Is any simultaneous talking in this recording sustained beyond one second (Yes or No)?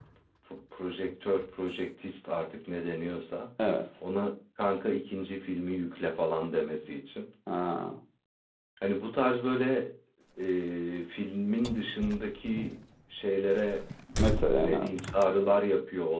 No